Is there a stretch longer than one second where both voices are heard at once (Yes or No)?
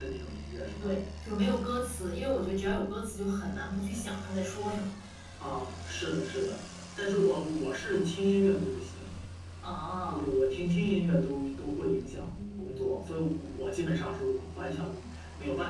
No